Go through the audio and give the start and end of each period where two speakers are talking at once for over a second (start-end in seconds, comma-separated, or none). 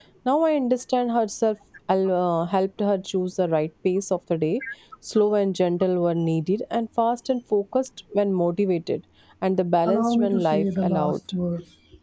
9.8-11.2